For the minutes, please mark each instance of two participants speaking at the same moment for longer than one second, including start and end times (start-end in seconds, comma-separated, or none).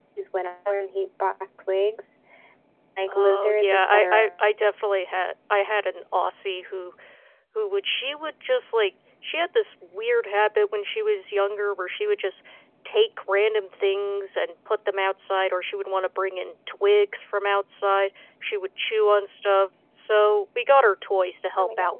3.1-4.3